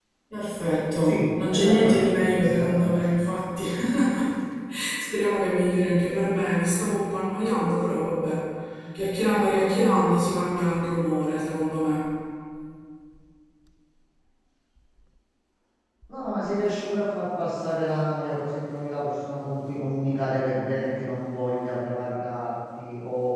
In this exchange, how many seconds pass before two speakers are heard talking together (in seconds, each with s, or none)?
1.0 s